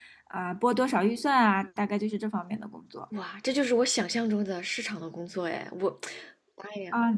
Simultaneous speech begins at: none

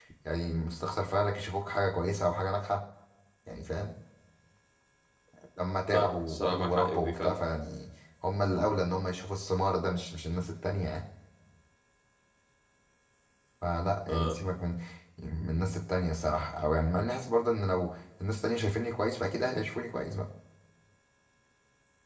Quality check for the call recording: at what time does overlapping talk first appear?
5.9 s

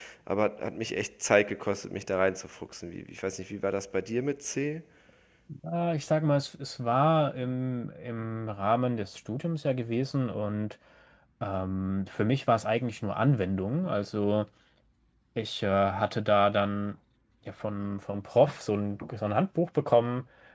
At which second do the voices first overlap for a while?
none

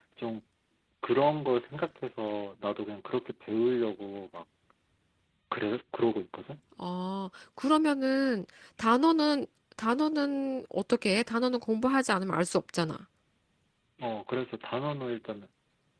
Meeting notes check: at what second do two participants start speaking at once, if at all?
none

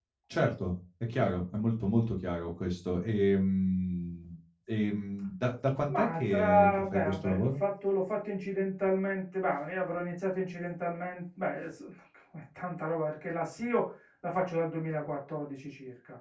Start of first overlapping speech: 5.9 s

